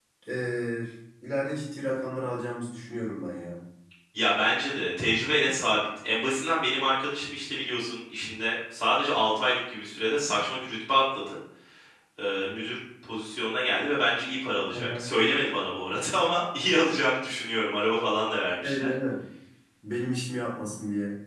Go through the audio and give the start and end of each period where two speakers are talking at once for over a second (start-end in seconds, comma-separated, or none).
none